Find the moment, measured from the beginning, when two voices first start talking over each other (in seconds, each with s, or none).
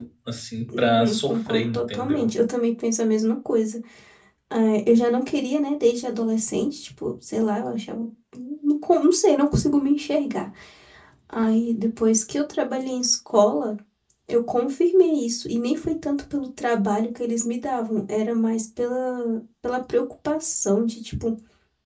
0.8 s